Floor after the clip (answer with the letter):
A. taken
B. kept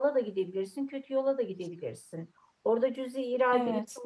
B